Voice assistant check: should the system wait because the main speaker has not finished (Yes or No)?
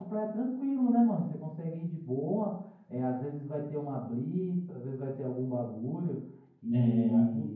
No